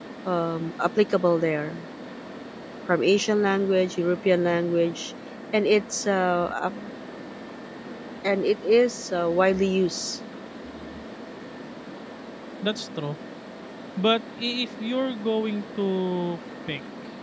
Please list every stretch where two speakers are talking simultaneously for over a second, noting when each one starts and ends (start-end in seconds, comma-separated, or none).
none